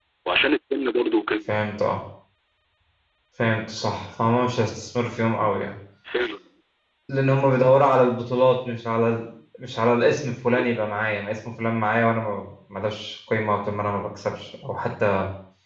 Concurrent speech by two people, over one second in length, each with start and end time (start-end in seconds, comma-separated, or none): none